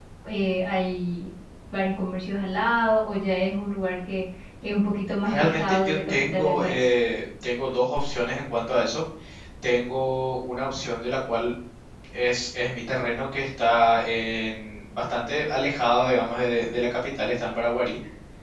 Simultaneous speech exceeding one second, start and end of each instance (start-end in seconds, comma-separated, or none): 5.2-6.9